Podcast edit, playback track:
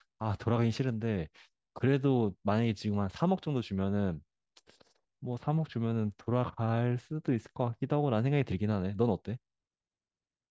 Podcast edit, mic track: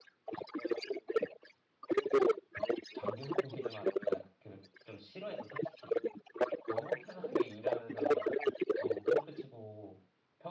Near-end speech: present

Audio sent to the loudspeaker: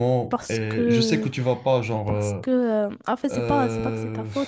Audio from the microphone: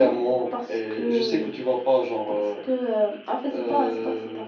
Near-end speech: none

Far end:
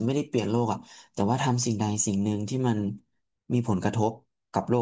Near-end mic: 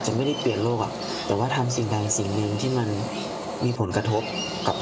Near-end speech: none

